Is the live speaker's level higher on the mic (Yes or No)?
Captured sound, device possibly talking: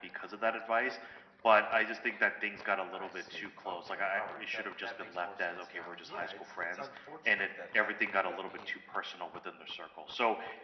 No